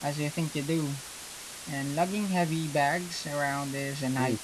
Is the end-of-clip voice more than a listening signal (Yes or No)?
Yes